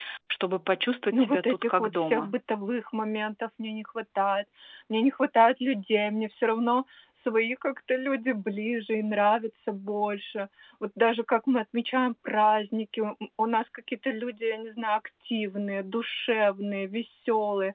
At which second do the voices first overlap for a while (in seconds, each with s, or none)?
1.1 s